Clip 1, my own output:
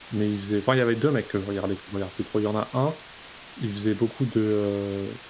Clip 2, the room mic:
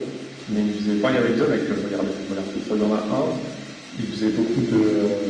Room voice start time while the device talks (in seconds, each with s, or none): none